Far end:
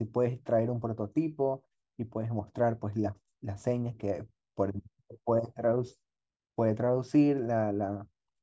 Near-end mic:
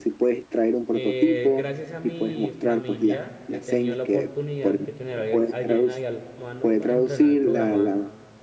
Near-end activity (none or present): present